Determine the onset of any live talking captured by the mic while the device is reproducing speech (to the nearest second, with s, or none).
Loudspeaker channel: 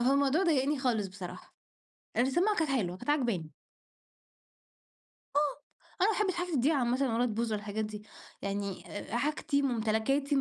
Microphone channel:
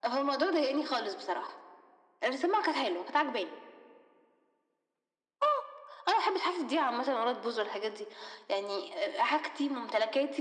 none